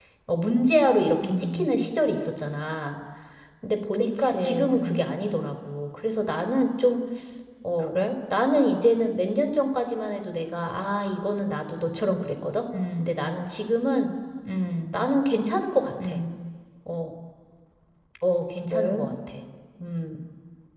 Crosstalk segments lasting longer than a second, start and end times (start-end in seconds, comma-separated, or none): 3.9-5.2